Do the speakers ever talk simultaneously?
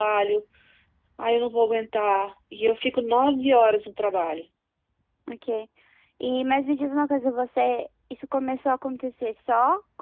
No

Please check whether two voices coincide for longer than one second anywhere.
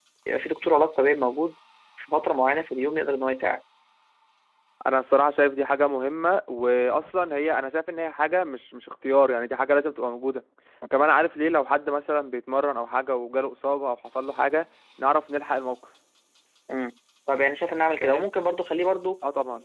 No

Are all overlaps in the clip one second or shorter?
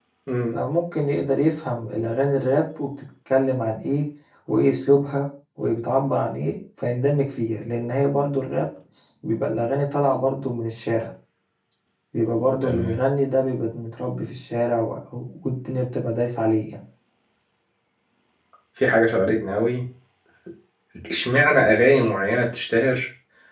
Yes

